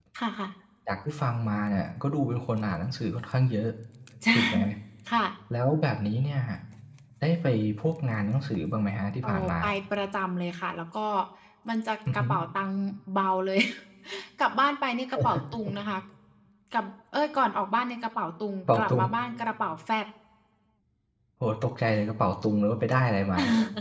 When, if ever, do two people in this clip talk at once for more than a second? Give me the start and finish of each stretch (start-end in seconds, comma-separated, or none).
none